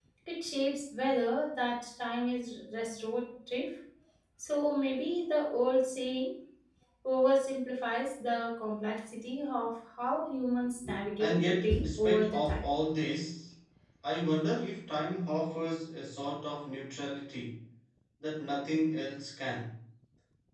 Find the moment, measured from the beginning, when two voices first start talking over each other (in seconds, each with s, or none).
11.2 s